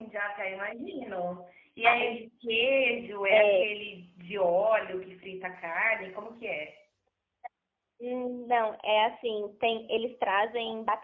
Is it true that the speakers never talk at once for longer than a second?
Yes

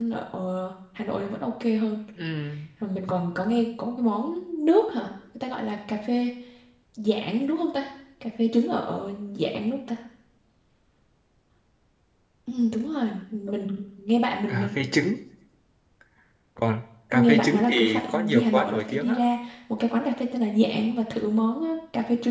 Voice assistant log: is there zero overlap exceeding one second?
No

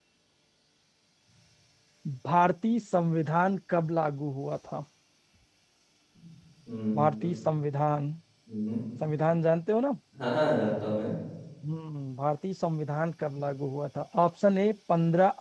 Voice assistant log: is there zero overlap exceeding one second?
Yes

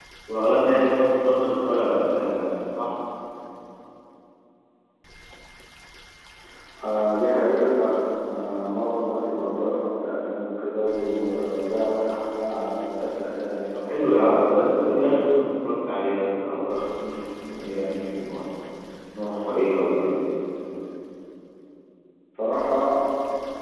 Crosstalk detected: Yes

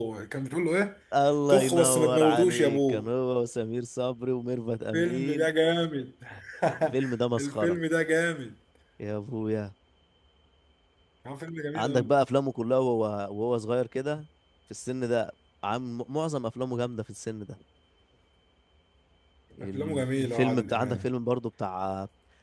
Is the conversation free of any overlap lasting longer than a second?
No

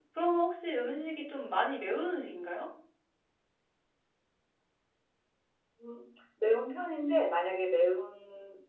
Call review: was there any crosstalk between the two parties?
No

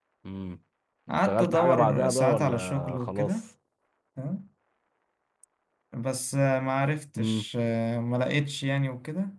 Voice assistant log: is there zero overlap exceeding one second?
No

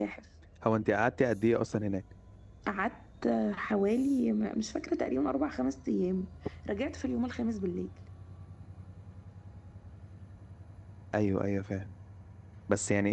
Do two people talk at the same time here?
No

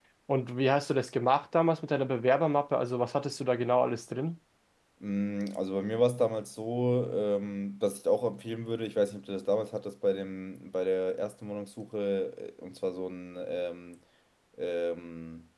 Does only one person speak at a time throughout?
Yes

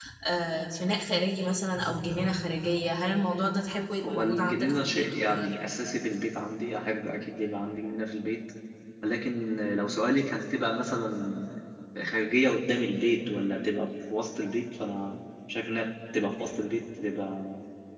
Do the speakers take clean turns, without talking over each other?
No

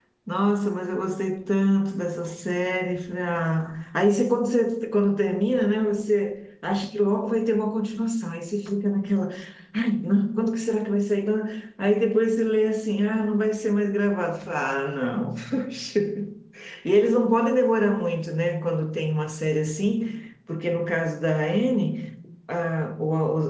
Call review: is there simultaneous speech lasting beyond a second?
No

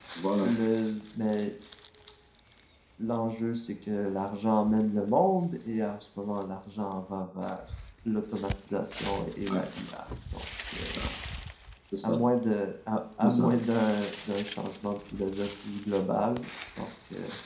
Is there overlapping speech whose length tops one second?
No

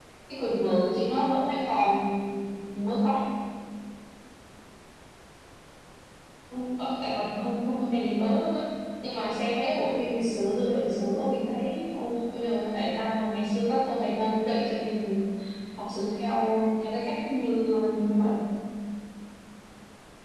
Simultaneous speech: No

